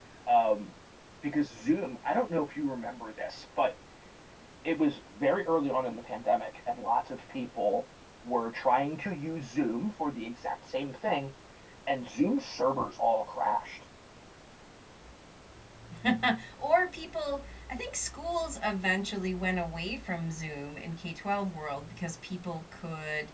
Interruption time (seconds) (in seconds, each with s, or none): none